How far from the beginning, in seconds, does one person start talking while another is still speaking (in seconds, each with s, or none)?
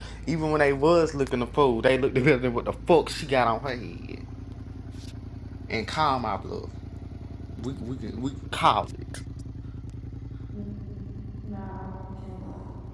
none